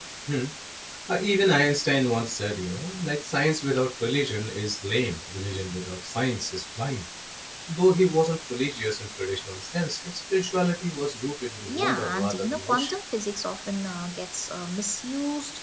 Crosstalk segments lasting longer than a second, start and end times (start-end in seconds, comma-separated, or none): 11.7-13.0